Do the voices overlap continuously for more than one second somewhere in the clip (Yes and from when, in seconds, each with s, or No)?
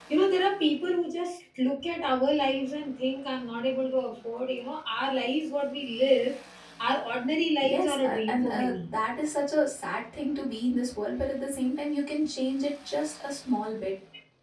Yes, from 7.6 s